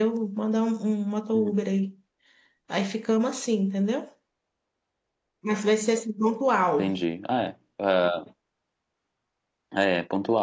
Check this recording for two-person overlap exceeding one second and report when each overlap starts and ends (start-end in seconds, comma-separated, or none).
none